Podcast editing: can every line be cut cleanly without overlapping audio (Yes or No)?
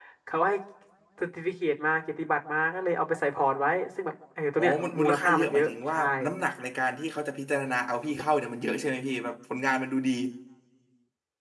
No